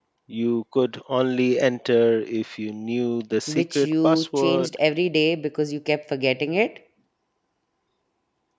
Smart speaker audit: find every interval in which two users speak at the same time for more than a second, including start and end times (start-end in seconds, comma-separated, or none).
3.5-4.7